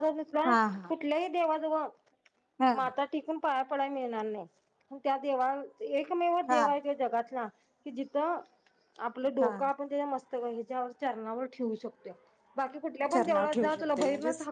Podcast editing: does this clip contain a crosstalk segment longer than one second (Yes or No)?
Yes